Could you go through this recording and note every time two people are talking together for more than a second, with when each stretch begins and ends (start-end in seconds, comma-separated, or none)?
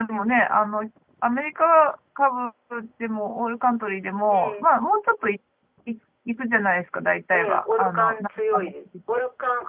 7.3-8.6